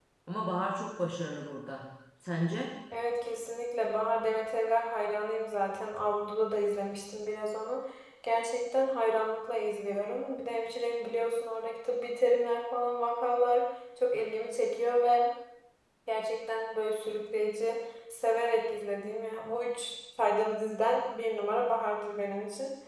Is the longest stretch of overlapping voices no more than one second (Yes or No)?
Yes